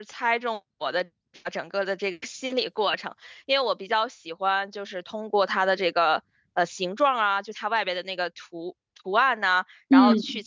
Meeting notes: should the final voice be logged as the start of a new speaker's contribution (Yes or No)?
No